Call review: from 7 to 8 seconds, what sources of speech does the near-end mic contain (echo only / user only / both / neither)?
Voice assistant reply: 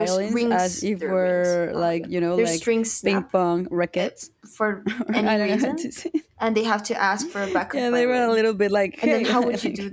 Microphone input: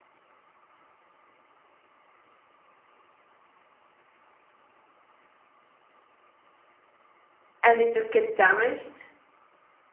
user only